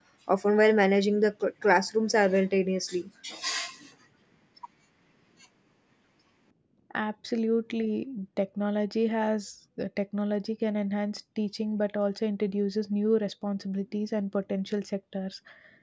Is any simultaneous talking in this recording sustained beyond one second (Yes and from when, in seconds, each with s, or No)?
No